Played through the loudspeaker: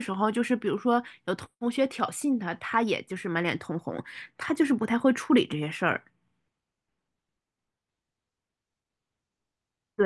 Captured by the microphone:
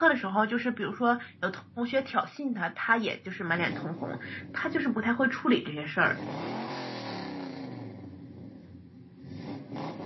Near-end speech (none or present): none